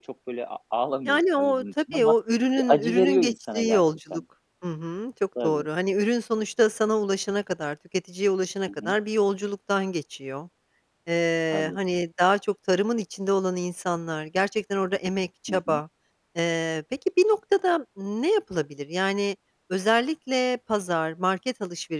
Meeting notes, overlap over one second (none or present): present